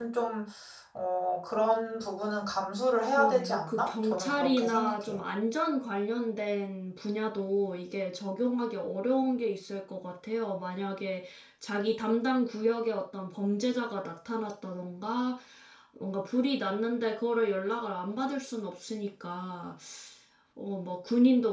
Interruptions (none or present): present